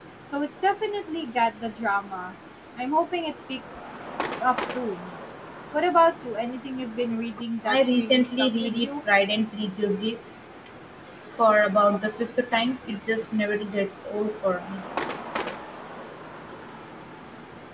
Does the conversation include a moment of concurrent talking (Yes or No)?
Yes